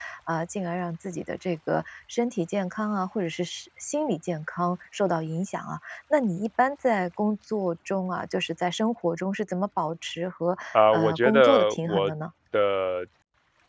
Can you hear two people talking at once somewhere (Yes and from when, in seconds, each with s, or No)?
Yes, from 10.8 s